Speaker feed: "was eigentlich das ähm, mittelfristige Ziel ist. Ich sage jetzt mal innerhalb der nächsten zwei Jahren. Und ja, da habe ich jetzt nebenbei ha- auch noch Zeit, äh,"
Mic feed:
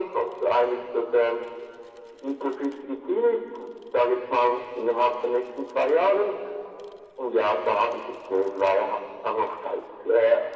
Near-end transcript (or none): none